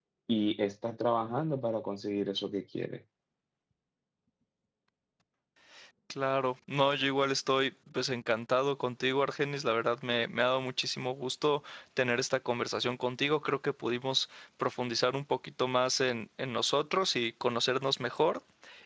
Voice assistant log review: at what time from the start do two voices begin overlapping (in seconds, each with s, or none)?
none